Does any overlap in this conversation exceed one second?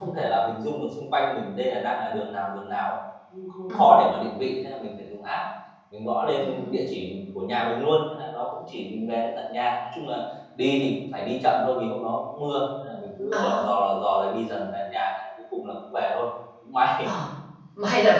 No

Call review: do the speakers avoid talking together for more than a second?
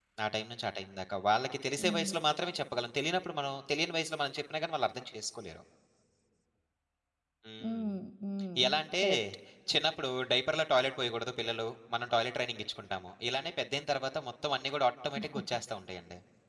Yes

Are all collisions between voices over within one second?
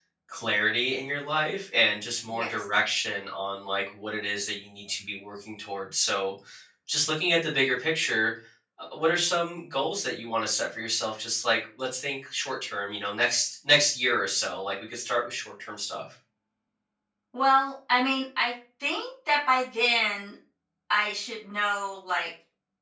Yes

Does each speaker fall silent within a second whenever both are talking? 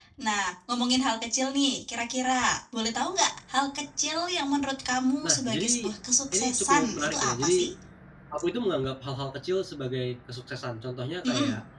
No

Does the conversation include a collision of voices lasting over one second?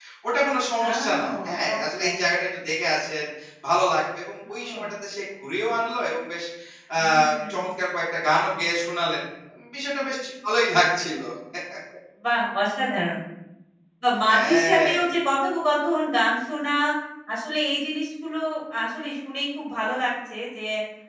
Yes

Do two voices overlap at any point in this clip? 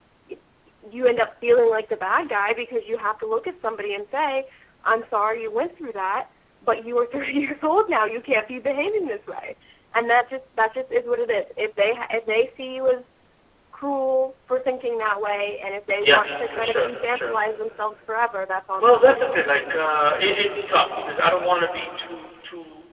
Yes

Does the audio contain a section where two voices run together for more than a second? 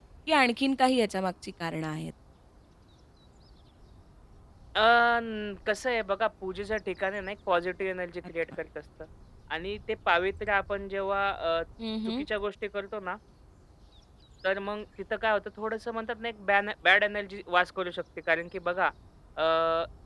No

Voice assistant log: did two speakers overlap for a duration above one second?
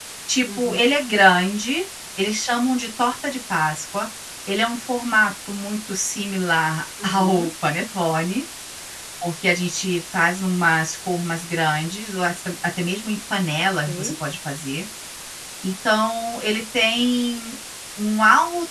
No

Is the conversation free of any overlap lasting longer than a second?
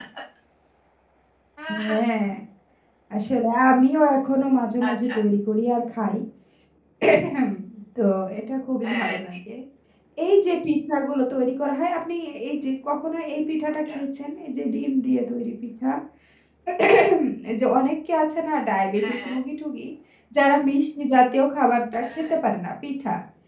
Yes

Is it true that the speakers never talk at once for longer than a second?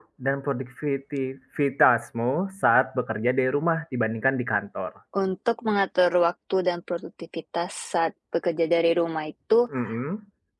Yes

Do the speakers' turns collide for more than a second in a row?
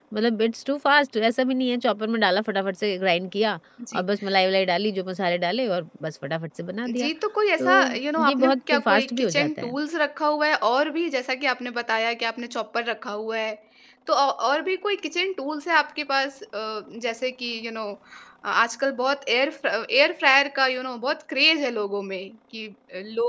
Yes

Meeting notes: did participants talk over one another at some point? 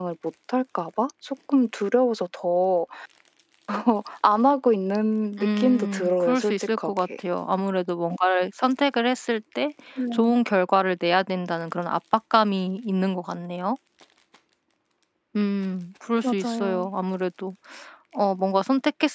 Yes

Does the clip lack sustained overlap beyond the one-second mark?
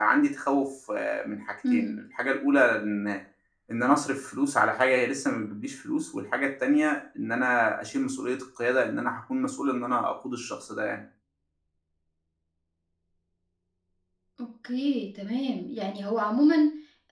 Yes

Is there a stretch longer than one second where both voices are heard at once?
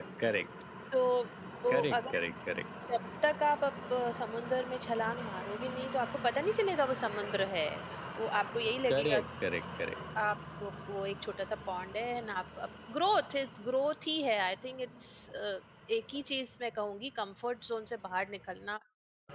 No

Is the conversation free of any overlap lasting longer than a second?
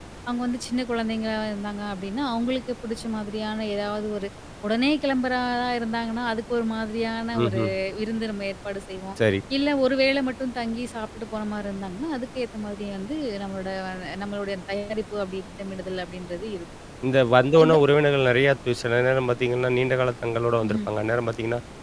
Yes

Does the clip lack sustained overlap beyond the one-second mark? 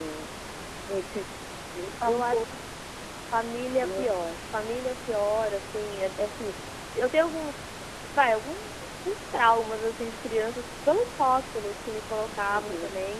Yes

